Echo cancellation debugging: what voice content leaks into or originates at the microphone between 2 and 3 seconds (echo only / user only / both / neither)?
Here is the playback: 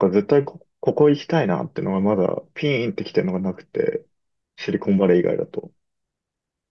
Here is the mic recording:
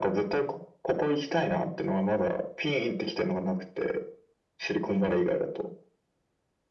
echo only